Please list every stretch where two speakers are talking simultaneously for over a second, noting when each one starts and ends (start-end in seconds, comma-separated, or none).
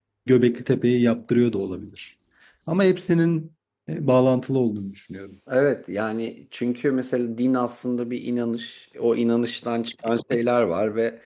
none